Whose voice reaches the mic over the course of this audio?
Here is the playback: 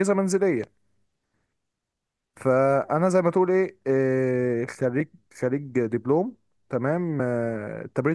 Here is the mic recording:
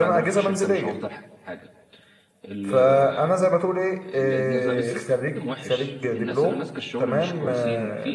both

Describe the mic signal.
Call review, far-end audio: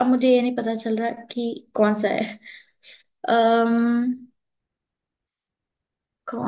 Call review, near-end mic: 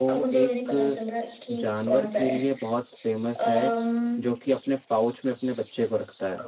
both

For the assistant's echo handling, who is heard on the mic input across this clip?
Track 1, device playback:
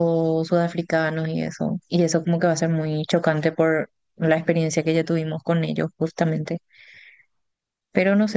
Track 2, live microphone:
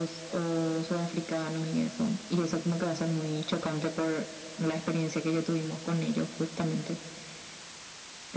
echo only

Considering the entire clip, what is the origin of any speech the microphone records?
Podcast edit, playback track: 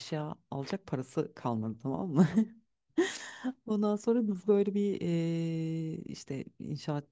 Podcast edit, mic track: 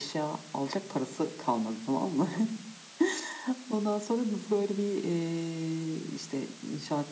echo only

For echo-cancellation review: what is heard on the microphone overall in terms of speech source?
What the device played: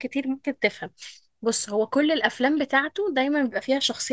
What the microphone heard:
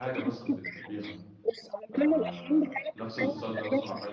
both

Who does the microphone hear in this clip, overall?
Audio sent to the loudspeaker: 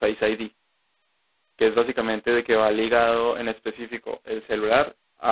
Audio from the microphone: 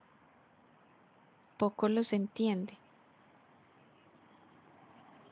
user only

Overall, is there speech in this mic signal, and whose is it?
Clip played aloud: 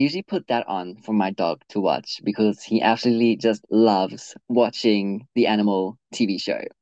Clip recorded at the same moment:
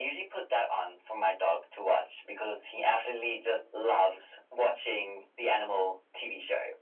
echo only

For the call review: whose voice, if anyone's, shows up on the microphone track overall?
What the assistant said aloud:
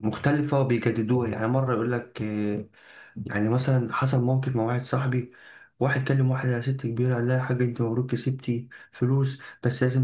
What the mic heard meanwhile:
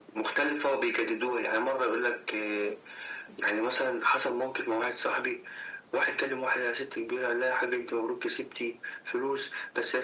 echo only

